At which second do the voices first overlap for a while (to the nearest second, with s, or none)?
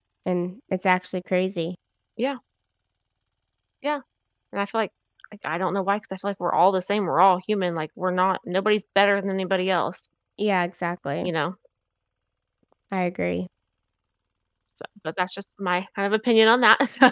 none